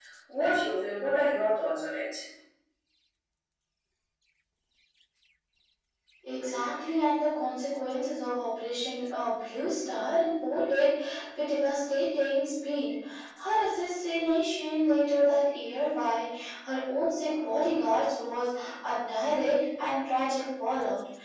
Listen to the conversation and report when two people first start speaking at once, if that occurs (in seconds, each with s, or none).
none